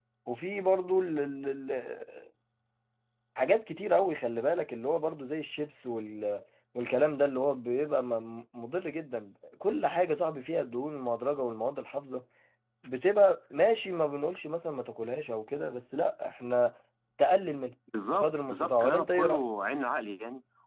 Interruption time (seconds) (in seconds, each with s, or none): 17.9 s